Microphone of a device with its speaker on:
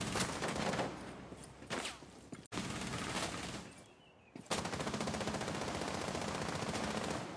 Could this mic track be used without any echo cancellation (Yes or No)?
Yes